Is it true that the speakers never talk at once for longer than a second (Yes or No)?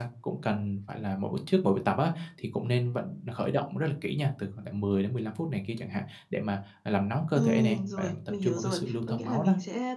No